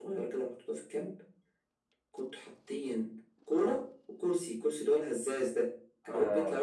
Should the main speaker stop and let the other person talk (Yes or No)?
No